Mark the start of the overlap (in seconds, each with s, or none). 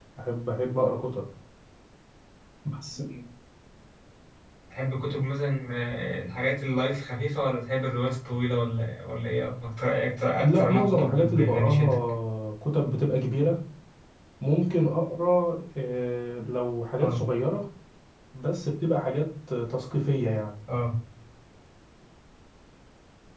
10.4 s